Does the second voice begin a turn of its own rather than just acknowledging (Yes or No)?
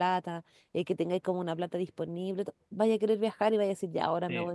No